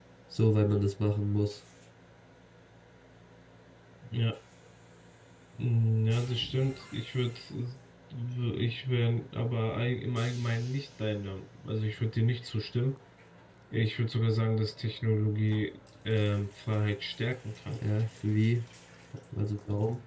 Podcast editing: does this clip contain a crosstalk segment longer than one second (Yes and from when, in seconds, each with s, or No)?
No